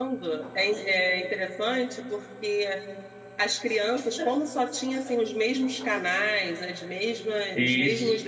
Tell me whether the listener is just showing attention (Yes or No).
Yes